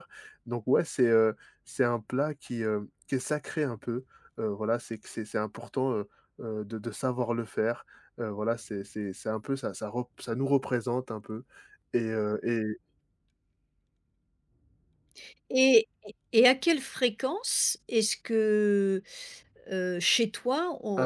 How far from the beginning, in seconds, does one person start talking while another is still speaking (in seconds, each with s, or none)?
none